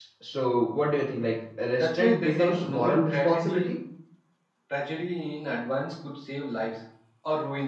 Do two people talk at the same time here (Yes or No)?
Yes